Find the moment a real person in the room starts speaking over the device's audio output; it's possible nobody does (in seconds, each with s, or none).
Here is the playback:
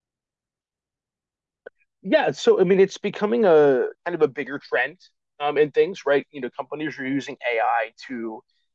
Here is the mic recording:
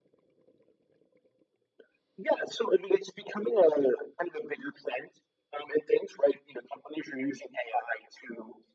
none